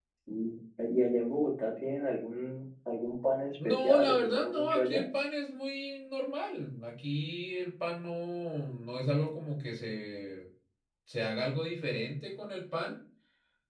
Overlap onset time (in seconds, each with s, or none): 3.6 s